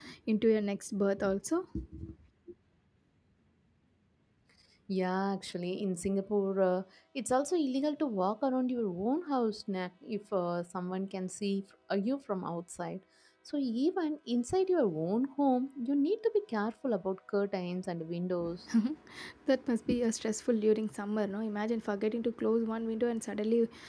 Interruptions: none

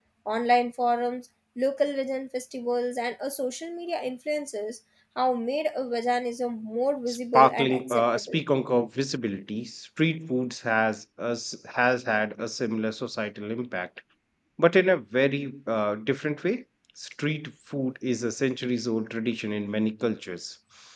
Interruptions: present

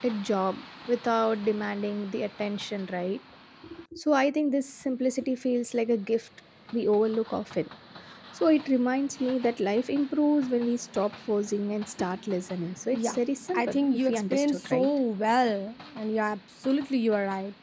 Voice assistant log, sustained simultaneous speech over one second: present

